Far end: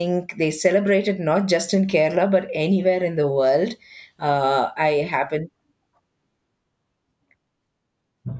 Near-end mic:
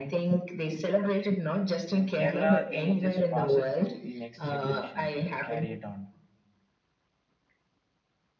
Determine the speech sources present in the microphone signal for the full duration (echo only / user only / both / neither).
both